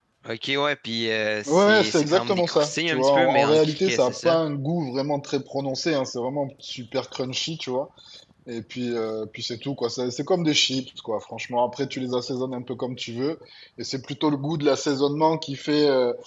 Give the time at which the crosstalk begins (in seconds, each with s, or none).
1.5 s